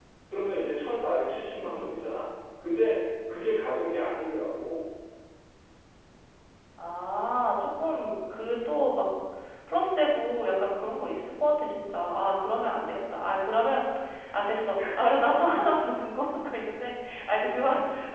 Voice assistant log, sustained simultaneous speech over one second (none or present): none